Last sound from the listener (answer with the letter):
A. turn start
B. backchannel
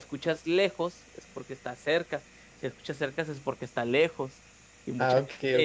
A